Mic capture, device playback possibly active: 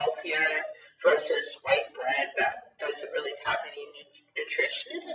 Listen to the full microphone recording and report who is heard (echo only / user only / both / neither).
echo only